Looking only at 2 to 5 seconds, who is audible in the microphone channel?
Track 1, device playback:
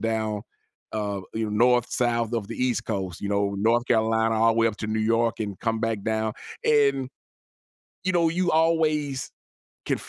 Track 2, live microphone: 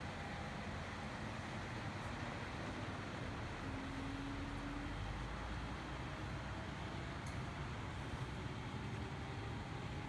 neither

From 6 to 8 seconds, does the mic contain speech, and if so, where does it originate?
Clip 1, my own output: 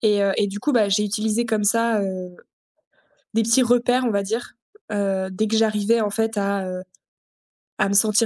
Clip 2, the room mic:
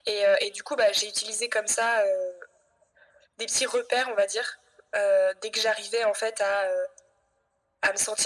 echo only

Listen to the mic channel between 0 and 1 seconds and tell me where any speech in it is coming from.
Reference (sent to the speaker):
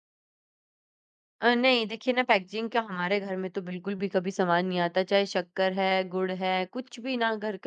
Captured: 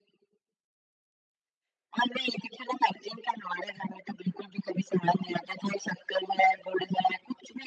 neither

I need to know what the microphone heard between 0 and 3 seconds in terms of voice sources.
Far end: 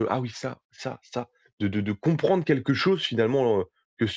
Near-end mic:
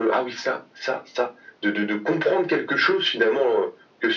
echo only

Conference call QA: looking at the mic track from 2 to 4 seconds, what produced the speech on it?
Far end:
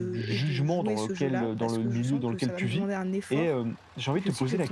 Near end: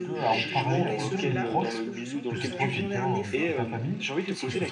both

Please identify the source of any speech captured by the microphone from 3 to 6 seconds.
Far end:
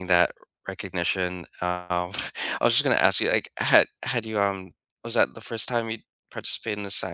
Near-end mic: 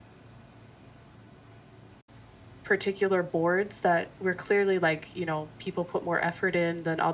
user only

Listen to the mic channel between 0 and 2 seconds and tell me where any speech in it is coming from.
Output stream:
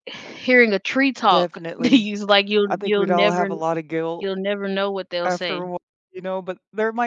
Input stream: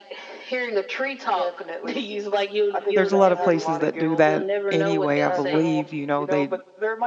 echo only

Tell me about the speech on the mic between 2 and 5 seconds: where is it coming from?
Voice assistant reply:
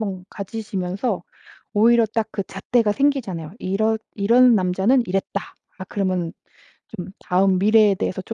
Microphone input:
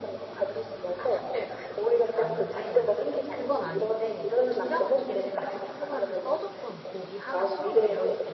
both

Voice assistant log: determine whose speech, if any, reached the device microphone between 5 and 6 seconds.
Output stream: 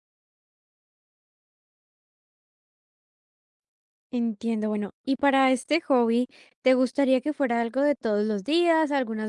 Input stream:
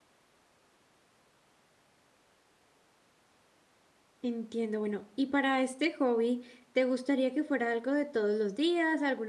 echo only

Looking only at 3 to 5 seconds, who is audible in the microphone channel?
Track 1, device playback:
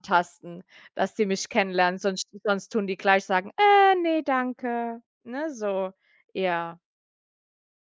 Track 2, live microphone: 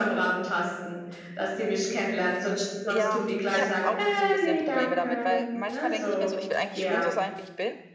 both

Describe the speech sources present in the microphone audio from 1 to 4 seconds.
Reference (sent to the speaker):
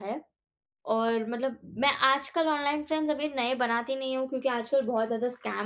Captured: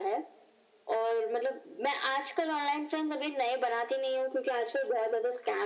echo only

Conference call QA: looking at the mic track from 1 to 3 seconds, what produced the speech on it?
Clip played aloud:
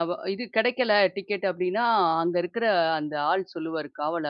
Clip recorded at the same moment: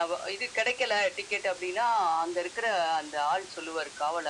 echo only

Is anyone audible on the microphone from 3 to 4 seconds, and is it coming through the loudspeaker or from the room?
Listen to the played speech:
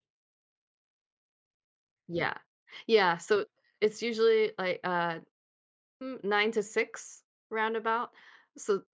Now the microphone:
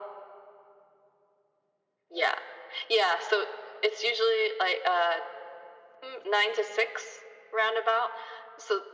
echo only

